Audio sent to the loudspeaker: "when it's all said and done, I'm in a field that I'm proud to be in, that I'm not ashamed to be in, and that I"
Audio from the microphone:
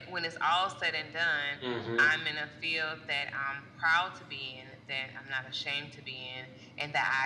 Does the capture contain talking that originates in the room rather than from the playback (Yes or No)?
Yes